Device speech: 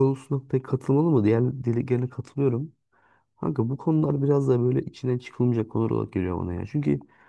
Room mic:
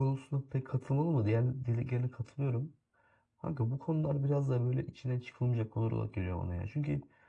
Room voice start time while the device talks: none

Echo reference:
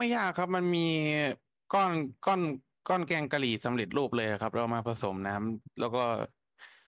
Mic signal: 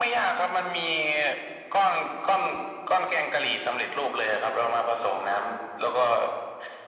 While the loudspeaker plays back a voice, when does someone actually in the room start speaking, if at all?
none

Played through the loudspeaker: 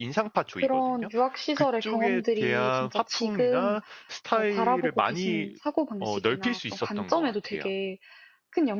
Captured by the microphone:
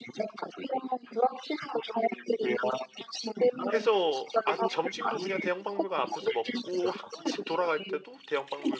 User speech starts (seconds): 3.6 s

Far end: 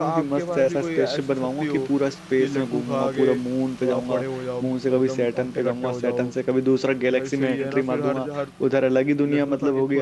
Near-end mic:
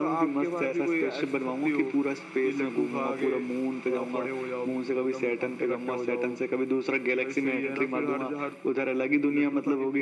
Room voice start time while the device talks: none

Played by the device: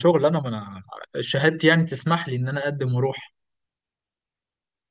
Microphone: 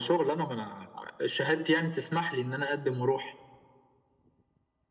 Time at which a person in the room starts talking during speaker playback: none

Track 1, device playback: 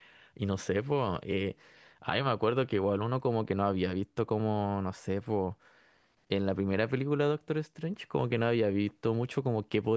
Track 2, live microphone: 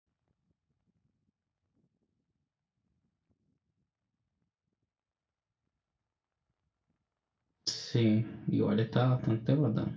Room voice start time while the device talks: 7.7 s

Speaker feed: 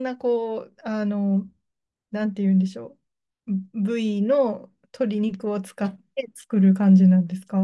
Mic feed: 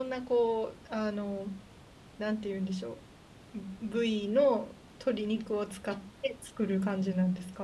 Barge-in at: none

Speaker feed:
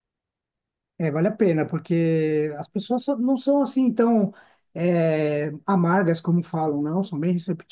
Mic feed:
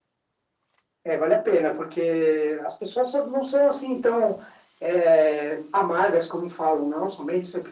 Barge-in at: none

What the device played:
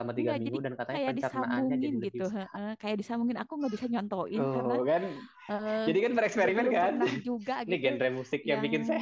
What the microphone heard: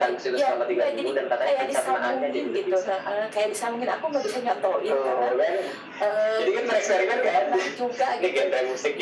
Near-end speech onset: none

